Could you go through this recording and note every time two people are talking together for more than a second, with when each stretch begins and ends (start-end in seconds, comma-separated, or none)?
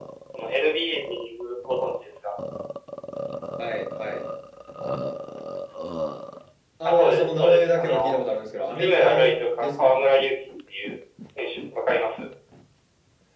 6.8-8.1, 8.8-10.0